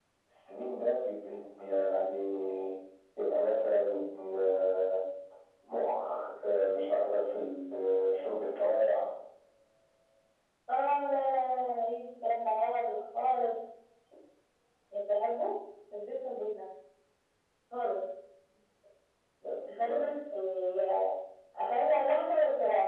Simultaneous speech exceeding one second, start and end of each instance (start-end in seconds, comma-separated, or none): none